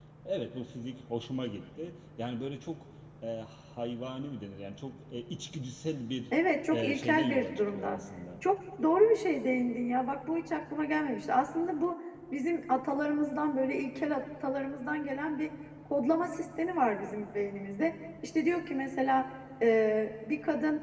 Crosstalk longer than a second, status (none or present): present